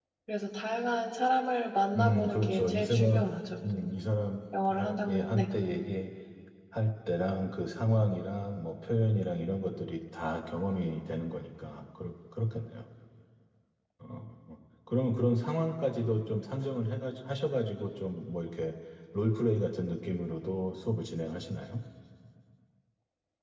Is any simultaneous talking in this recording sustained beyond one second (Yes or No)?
Yes